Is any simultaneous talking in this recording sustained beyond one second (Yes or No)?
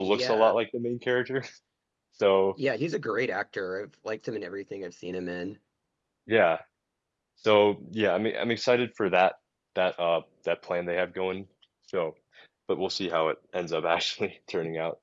No